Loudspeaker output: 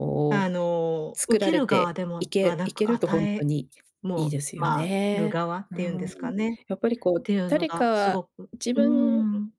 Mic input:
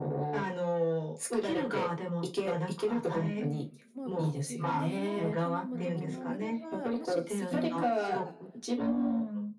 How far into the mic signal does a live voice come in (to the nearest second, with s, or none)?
3 s